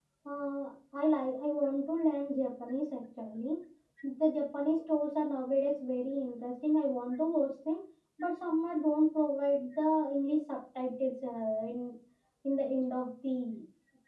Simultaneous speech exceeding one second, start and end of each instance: none

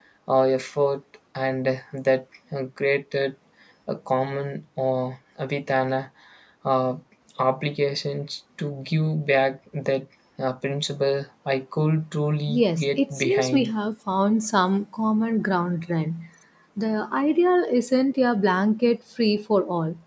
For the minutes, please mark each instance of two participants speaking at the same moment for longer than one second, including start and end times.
12.5-13.7

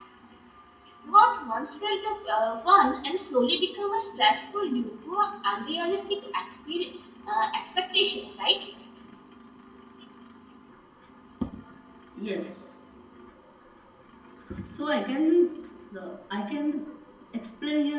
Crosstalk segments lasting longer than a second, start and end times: none

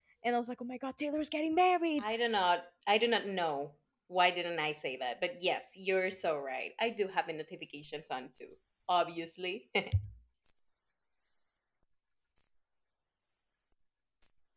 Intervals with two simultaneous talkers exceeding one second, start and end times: none

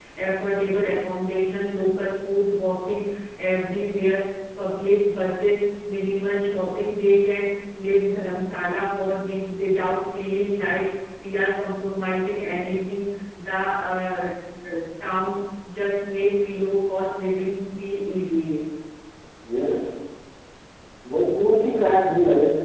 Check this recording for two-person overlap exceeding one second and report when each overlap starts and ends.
none

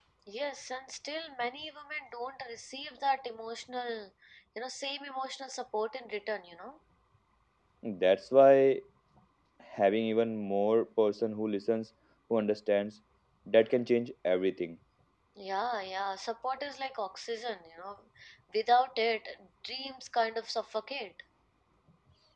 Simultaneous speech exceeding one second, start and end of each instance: none

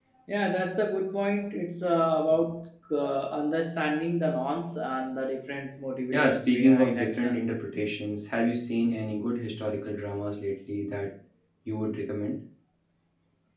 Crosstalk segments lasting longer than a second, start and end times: 6.1-7.4

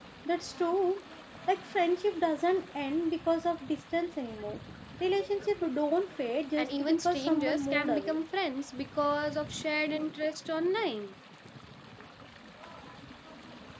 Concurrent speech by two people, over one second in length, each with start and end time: 6.6-8.2

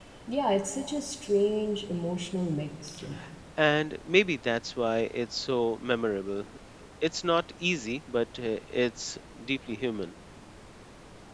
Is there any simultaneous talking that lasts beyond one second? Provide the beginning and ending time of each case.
none

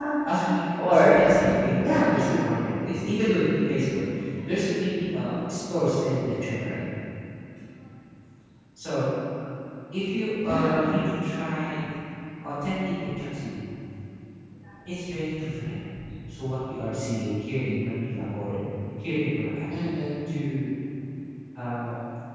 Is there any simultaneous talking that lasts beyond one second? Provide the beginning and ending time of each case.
0.9-2.5

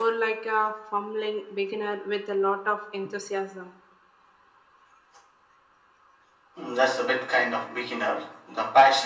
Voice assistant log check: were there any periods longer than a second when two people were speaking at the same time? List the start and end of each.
none

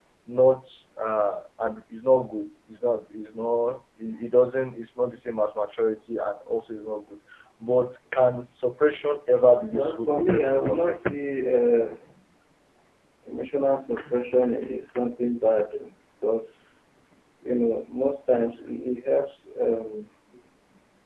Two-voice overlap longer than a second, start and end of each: 9.7-11.2

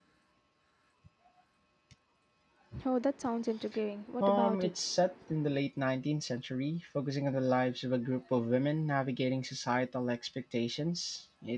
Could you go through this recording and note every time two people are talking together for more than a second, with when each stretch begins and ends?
none

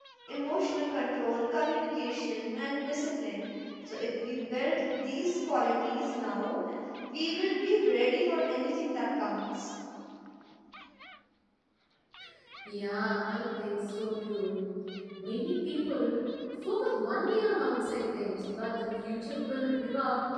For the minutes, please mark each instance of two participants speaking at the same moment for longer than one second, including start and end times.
none

